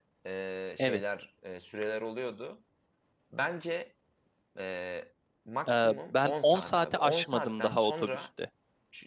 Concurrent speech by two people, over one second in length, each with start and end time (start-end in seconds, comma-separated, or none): 5.7-8.3